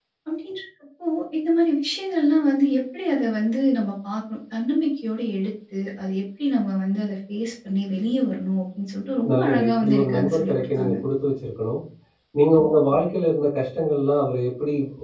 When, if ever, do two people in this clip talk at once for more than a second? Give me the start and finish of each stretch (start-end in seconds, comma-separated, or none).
9.3-10.9